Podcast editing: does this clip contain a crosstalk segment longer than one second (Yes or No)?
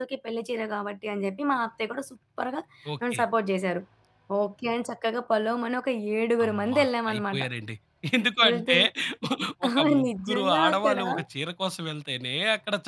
Yes